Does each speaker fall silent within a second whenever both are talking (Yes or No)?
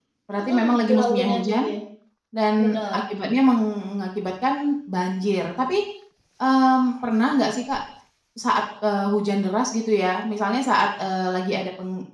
No